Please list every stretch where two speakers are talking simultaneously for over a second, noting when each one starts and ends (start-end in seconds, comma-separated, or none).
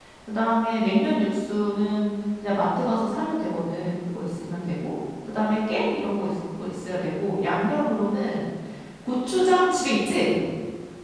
none